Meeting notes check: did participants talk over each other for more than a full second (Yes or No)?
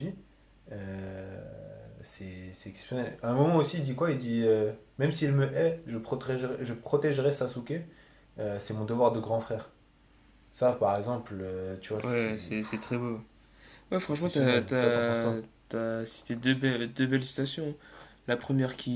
Yes